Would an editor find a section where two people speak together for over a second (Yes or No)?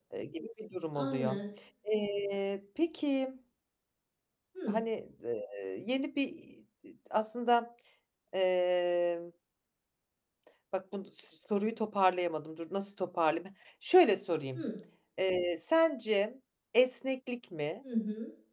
No